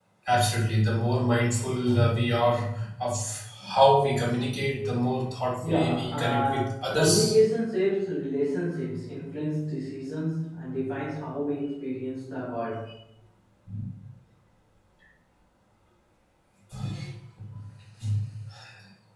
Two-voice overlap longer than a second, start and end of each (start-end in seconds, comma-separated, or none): 5.6-7.3